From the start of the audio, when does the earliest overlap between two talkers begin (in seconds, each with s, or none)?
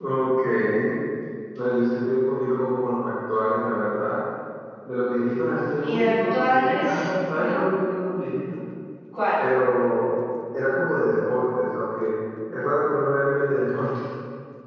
5.8 s